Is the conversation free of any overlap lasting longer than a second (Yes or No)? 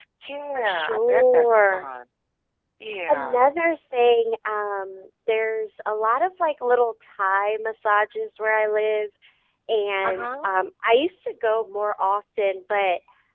No